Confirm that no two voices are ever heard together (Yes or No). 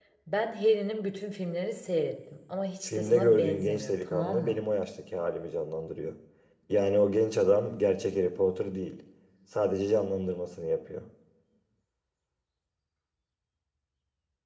No